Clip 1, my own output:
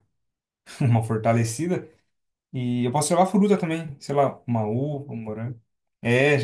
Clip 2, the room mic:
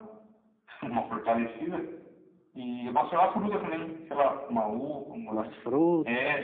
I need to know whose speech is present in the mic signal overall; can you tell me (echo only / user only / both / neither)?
both